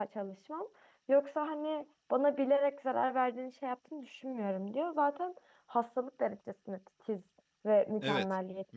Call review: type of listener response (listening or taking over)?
taking over